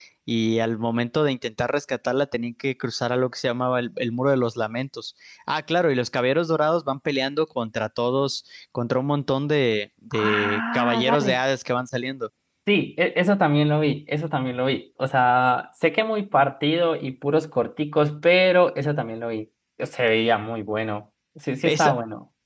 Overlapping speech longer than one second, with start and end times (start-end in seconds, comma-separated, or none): 10.1-11.4